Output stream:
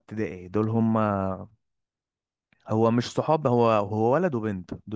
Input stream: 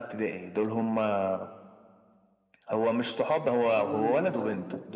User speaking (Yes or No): Yes